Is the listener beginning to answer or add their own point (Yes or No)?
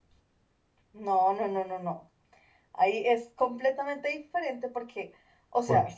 No